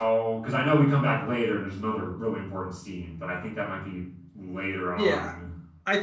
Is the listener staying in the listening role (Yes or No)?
No